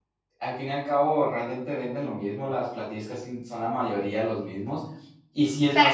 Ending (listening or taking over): taking over